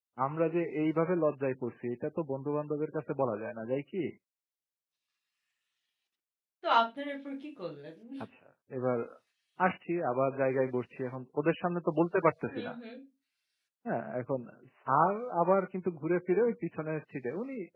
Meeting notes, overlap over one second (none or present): none